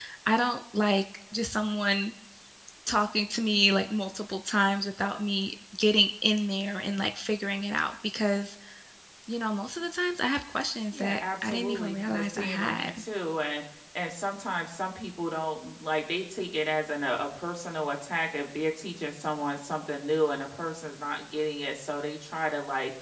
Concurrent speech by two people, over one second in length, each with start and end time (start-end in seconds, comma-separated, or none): 10.9-13.0